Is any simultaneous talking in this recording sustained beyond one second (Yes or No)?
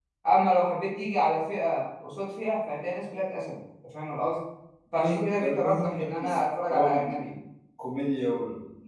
Yes